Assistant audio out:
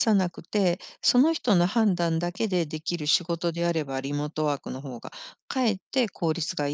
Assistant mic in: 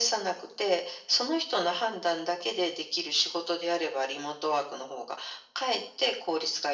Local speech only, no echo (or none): none